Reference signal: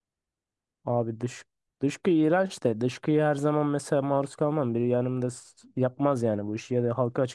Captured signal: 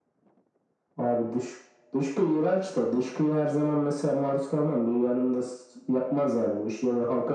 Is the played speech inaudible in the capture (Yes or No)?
No